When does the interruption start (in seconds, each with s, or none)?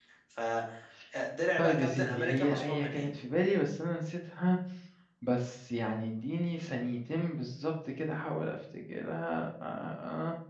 1.6 s